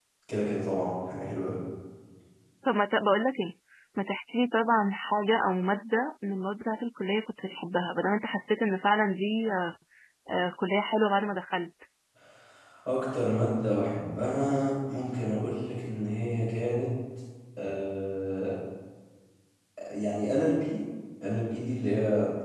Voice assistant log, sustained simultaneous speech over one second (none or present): none